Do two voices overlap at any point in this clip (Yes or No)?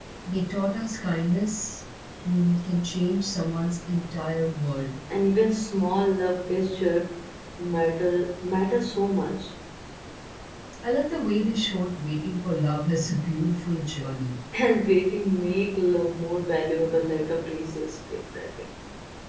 No